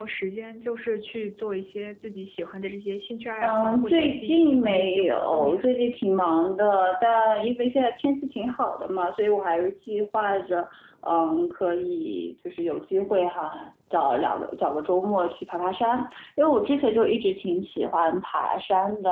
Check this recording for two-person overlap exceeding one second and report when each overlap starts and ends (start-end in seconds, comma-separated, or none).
3.4-5.5